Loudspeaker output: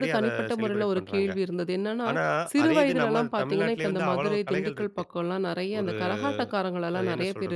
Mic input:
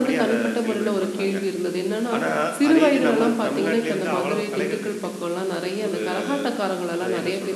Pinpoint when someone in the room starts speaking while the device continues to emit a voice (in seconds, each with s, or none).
none